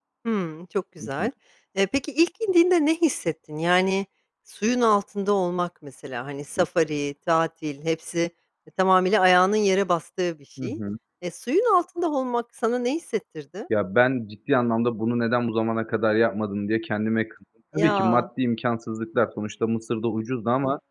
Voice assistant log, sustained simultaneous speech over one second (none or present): none